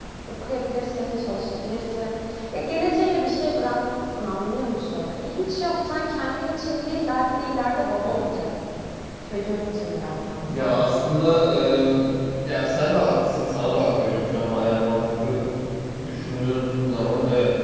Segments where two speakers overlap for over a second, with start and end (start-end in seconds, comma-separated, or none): none